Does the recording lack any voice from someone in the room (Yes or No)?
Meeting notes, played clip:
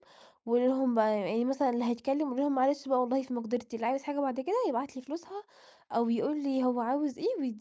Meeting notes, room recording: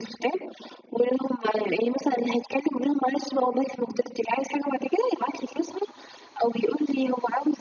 Yes